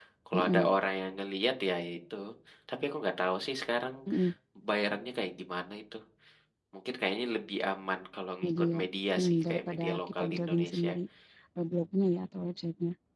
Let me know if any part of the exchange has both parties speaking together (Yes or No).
Yes